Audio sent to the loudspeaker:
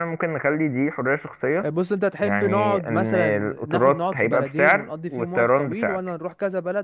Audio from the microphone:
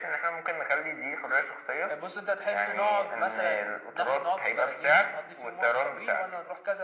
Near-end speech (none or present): none